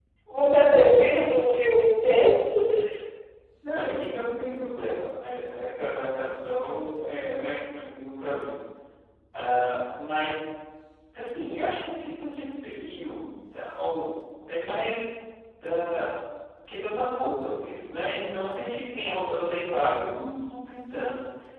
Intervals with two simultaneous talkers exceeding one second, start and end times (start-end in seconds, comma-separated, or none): none